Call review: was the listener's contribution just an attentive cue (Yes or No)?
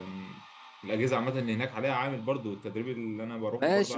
No